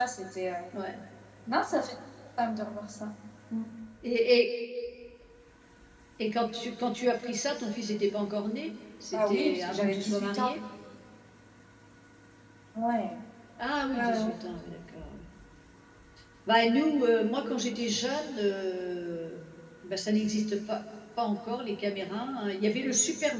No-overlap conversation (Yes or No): No